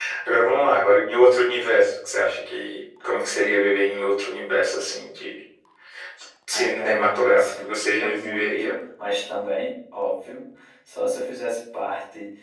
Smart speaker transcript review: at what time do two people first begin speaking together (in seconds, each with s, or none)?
6.5 s